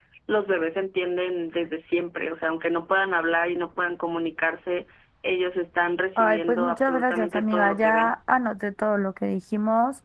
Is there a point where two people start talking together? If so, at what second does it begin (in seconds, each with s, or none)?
6.2 s